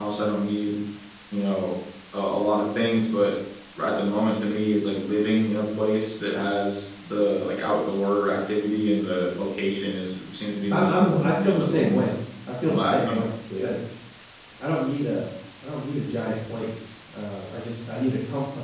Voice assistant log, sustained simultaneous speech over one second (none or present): present